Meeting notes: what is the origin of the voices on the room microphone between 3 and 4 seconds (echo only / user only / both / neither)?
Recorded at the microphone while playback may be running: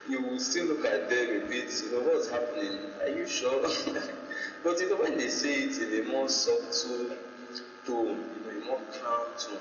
echo only